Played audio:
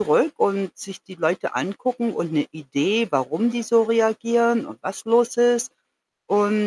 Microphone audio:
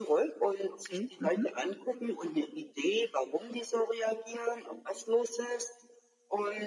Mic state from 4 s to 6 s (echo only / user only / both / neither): echo only